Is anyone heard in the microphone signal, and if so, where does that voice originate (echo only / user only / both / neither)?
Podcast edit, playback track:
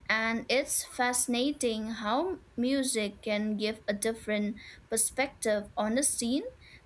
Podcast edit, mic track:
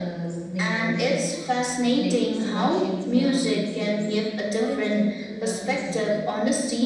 both